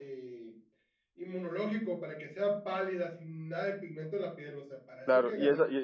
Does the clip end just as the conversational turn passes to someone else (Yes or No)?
Yes